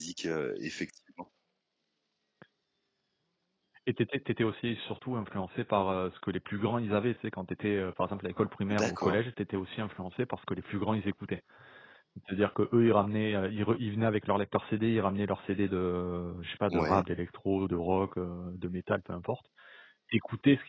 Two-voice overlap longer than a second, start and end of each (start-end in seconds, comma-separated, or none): none